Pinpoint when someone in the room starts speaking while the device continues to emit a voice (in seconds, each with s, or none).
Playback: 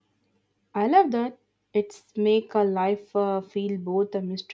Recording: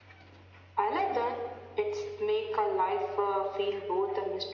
none